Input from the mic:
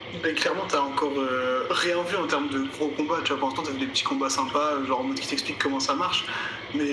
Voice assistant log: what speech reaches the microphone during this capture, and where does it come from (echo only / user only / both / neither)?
echo only